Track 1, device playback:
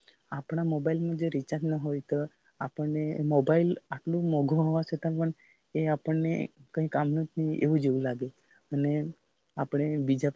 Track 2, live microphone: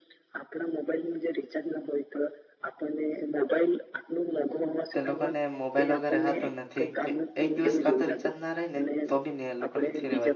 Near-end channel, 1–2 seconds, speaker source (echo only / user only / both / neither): echo only